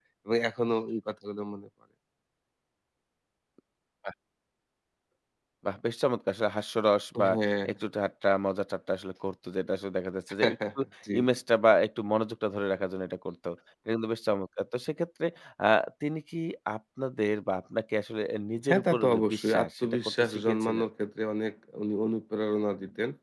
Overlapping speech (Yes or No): Yes